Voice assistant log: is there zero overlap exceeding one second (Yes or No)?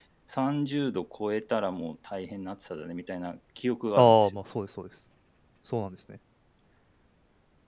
Yes